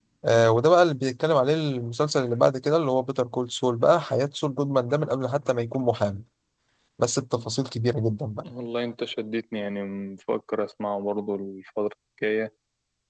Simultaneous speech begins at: none

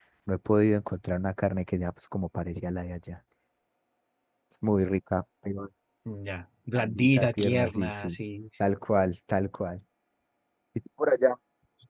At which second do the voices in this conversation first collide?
6.8 s

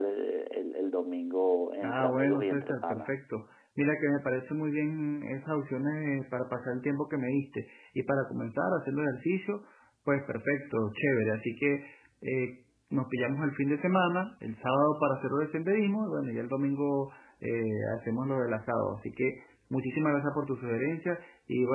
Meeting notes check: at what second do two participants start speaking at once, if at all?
1.8 s

